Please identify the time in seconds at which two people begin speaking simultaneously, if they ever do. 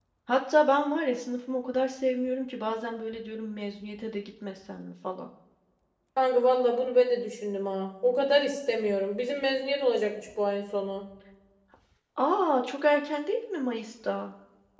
none

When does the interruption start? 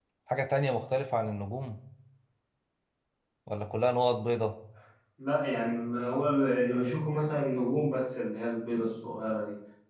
none

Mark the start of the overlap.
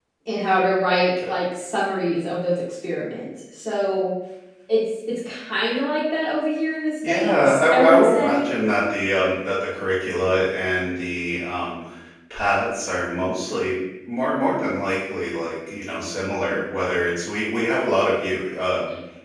7.0 s

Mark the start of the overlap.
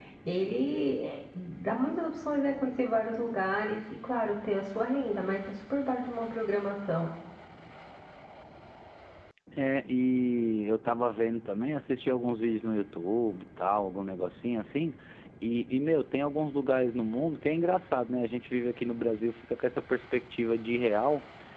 none

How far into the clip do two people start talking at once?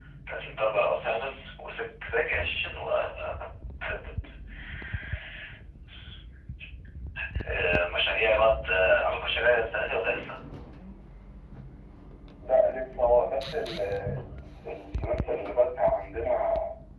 none

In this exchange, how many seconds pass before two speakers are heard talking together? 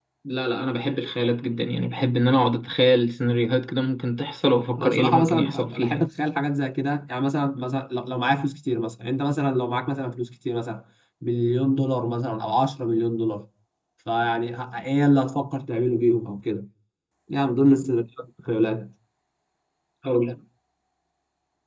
4.8 s

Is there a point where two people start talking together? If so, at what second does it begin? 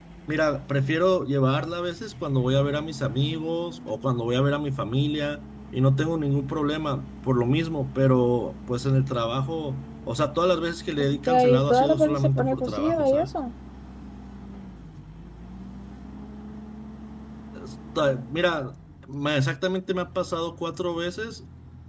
11.3 s

